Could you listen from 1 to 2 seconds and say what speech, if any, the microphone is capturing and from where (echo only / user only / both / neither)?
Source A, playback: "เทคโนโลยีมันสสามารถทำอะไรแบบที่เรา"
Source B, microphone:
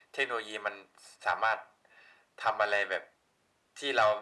echo only